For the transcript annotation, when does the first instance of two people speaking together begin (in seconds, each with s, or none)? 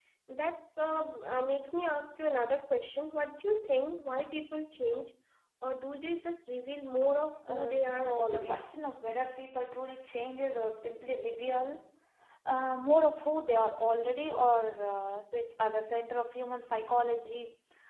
7.5 s